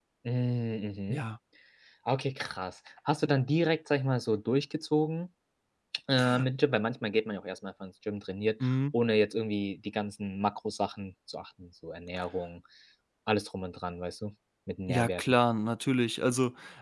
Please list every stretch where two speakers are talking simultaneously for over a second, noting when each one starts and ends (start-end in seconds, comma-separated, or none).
none